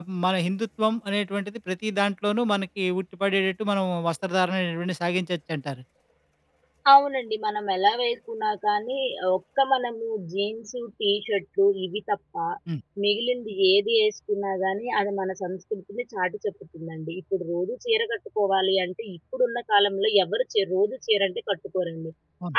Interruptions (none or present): none